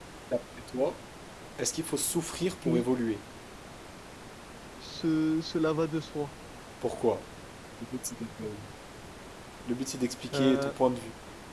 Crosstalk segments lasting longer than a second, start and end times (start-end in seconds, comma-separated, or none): none